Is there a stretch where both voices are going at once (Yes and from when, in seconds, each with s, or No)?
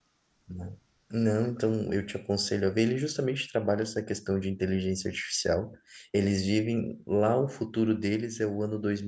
No